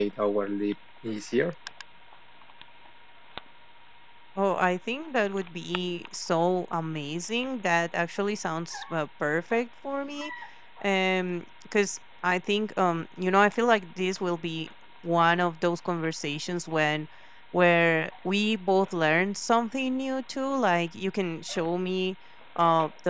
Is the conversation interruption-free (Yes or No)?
Yes